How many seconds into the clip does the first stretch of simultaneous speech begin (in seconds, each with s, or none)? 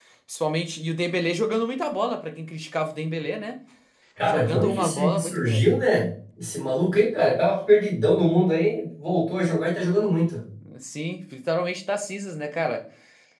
4.2 s